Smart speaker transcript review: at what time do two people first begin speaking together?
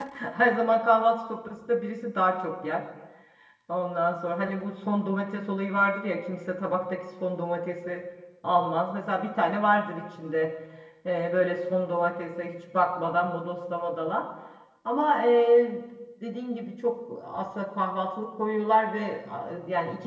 none

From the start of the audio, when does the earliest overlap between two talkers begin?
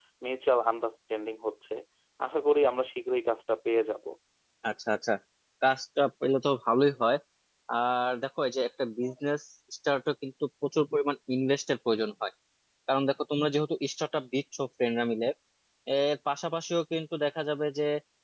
none

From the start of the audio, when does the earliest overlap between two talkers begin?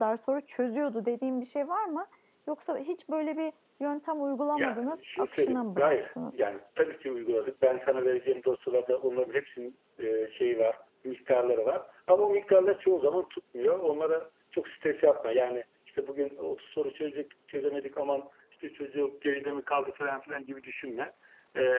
4.5 s

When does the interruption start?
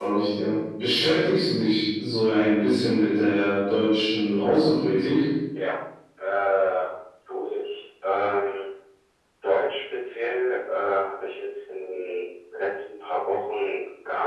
none

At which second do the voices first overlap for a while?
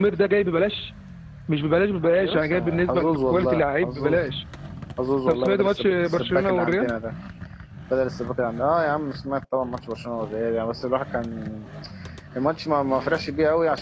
2.2 s

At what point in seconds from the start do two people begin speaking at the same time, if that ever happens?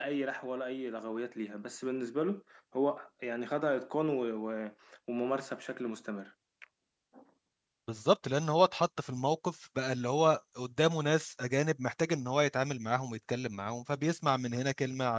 none

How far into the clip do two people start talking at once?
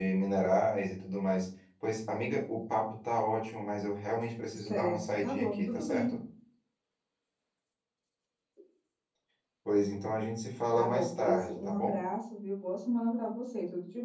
4.7 s

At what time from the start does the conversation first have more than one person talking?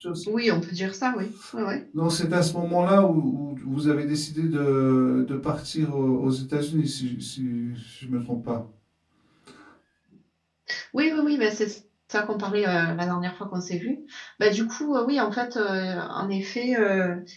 none

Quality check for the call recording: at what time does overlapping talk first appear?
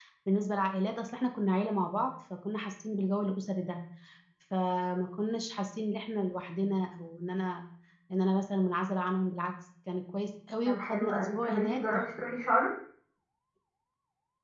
10.6 s

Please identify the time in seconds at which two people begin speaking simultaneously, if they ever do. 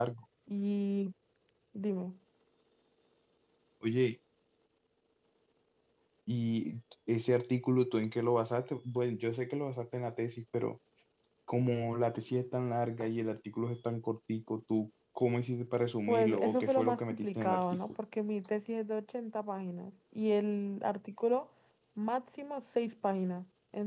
16.1 s

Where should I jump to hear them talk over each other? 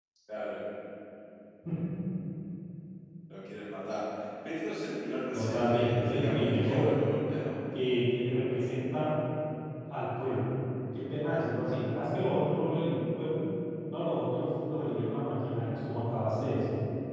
5.3 s

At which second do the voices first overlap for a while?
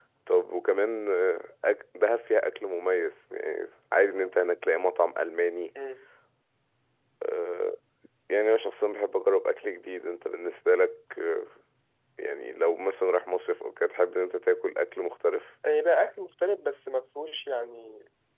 none

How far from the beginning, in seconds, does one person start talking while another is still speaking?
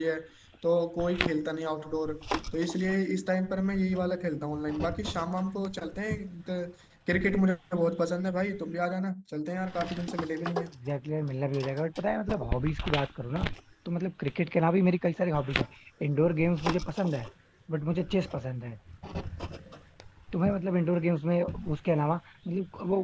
none

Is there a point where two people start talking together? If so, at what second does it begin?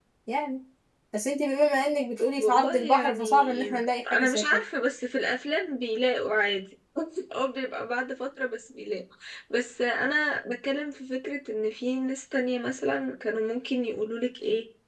2.4 s

